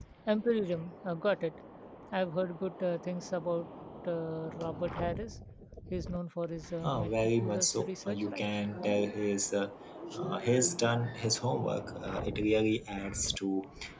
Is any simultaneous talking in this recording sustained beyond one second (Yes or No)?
Yes